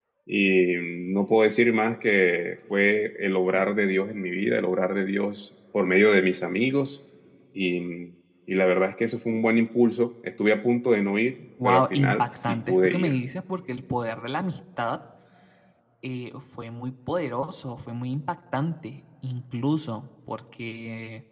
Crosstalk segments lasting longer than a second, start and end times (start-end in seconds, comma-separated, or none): 11.6-13.2